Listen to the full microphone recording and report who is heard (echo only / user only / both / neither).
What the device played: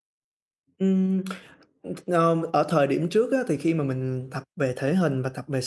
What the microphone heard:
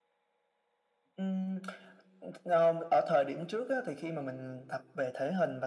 echo only